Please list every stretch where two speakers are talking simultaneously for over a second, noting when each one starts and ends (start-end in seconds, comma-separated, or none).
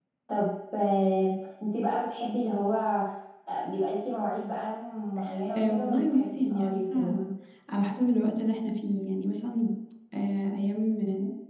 5.6-7.0